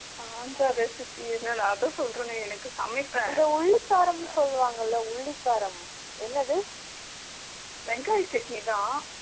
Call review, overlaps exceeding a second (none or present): none